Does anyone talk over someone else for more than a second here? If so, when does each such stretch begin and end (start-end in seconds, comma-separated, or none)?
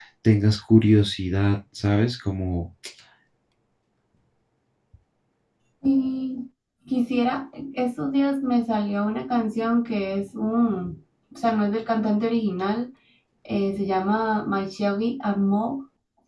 none